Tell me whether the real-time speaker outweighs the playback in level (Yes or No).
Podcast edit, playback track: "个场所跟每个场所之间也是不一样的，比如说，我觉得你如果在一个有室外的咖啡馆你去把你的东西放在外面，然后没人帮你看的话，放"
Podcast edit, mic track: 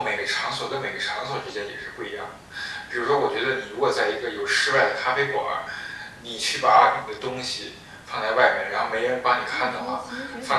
No